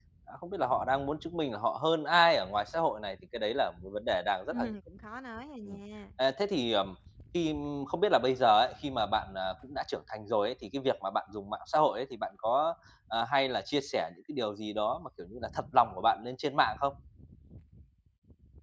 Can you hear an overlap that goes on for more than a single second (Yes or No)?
No